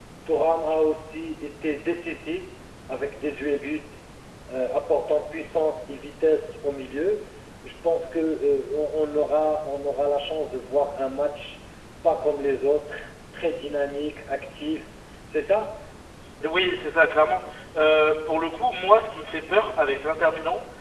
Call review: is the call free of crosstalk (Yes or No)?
Yes